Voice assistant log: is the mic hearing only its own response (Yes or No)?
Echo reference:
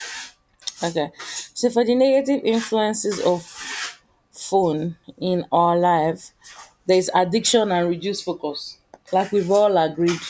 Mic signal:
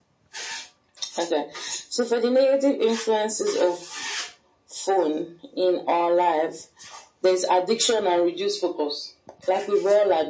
Yes